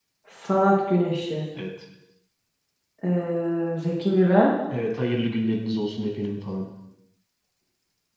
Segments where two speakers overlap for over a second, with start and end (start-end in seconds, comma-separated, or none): none